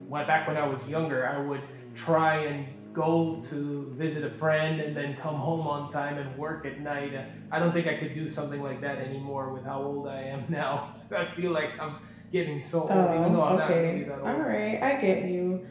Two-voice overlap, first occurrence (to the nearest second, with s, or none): 13 s